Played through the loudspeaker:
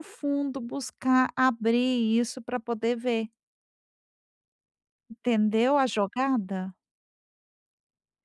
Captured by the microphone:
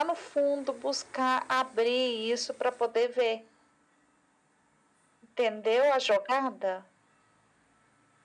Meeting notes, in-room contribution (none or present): none